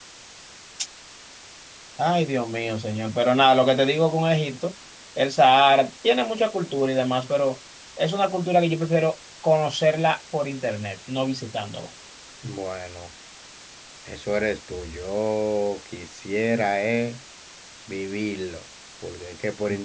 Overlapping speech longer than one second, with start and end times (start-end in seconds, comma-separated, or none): none